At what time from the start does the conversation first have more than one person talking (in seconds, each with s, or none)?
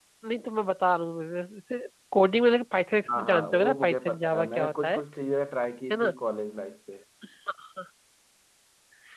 3.1 s